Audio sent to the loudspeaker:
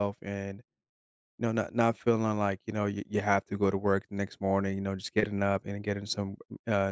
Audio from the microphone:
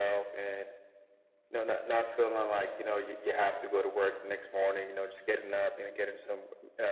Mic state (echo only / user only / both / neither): echo only